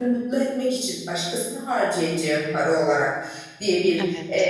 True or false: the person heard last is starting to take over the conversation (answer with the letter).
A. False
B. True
A